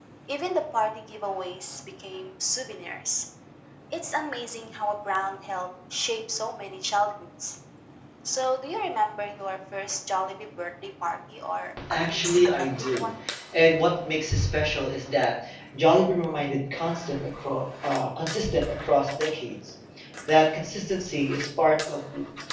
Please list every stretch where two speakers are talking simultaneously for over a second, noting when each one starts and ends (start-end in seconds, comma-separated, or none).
11.9-13.1